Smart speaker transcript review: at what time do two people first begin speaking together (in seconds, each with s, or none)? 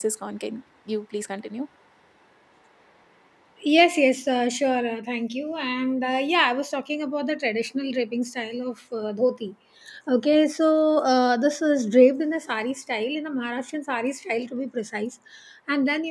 none